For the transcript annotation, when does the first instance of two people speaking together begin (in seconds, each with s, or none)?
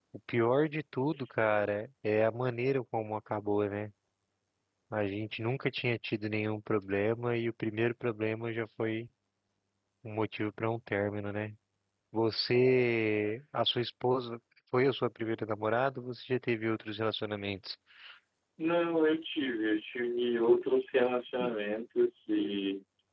none